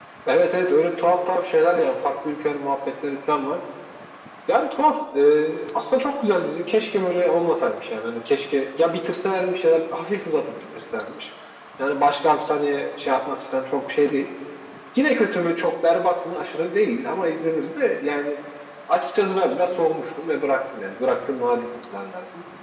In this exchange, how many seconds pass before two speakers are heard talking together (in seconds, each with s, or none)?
none